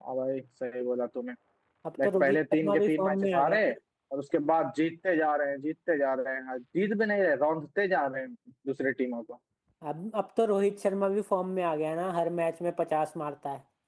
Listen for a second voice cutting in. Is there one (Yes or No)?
Yes